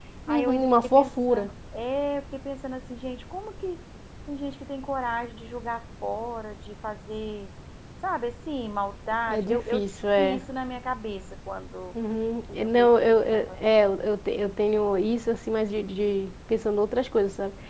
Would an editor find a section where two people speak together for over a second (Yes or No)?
Yes